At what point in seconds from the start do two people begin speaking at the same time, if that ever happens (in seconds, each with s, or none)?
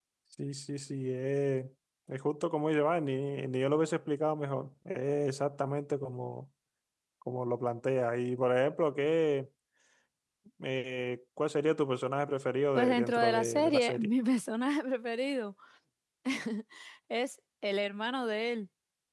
12.8 s